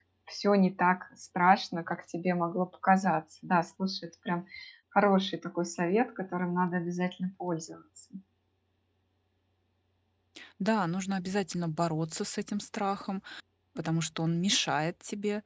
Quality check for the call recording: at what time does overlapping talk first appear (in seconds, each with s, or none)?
none